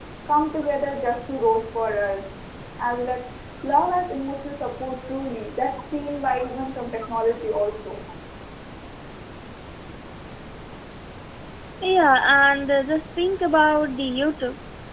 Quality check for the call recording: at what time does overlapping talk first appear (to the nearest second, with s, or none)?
none